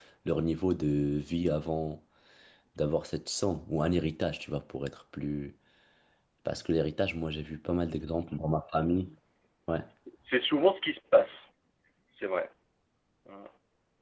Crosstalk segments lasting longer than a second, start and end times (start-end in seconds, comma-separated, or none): none